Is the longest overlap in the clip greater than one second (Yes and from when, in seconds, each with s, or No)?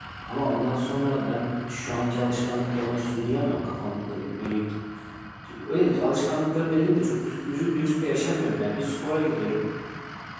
No